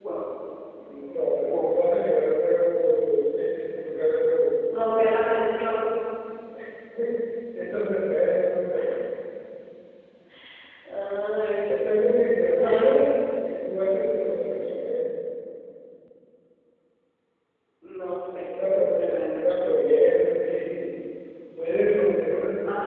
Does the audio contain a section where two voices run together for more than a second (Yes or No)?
No